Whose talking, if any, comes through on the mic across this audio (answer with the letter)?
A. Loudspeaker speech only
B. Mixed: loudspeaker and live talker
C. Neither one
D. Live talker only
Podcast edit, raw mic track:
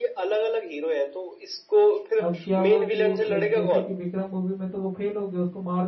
B